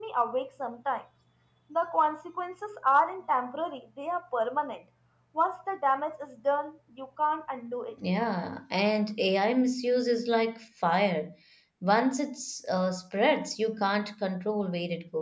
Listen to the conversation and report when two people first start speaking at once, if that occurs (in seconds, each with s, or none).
none